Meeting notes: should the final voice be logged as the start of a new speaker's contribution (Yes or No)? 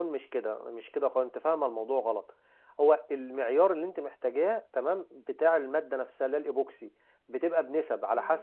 No